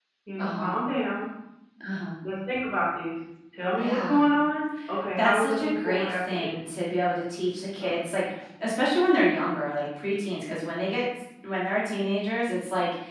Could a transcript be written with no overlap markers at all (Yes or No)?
No